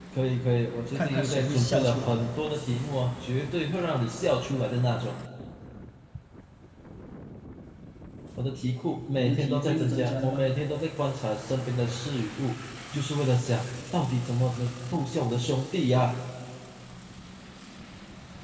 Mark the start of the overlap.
0.9 s

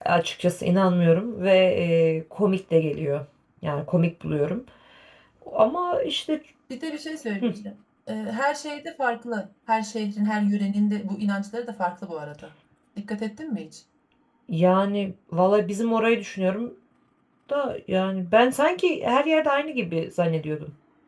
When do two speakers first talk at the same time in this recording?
none

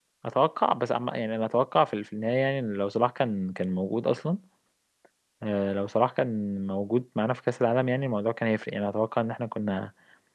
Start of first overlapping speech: none

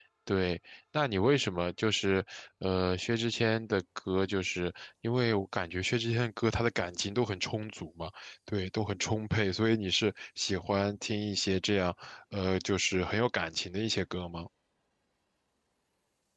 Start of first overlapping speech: none

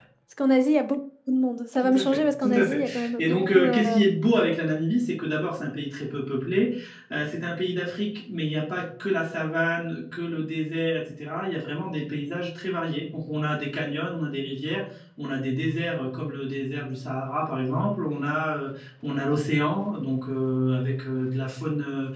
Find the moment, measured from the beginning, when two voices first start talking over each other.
1.8 s

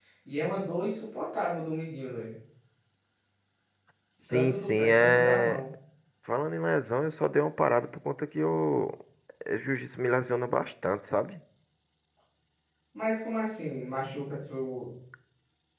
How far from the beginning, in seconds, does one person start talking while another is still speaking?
4.3 s

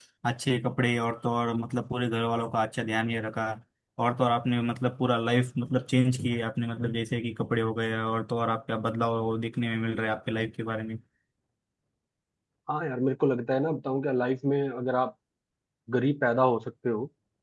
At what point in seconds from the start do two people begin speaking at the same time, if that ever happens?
none

